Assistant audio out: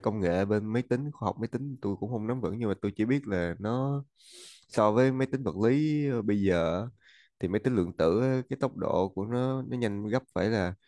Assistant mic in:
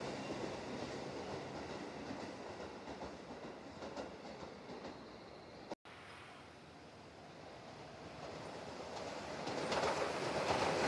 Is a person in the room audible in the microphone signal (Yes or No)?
No